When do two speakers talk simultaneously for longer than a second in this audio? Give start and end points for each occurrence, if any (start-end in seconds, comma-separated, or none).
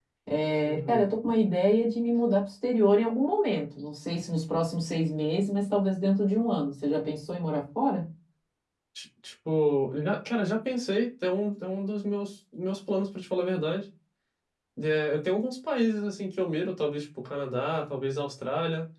none